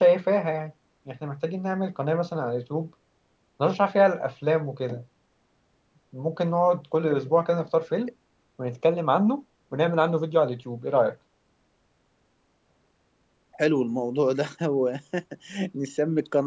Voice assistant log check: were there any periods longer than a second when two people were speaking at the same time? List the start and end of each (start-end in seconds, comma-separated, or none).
none